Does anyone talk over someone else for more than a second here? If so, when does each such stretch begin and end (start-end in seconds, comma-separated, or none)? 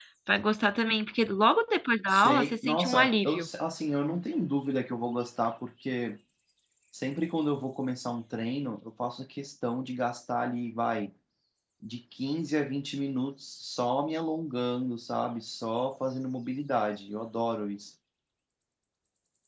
2.1-3.5